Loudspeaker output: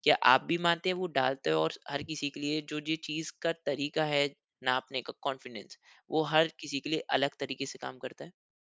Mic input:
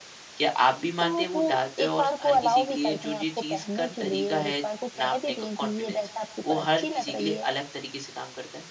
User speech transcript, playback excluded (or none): तो वो एक बार को अलाउ भी करते हैं आपको पहनने के लिए और एक बार को कह भी दें कि ये ड्रेस आपके ऊपर अच्छी लग रही है।